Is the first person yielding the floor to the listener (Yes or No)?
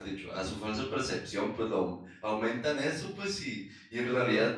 No